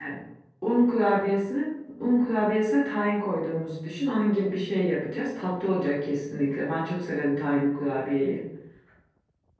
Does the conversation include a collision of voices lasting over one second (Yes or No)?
No